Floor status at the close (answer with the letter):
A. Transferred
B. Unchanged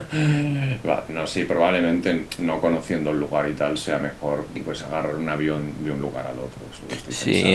A